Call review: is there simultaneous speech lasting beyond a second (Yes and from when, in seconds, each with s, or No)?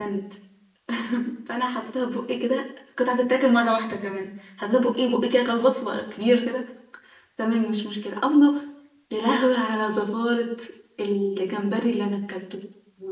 No